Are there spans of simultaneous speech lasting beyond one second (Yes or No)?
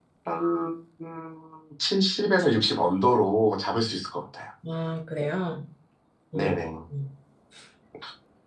No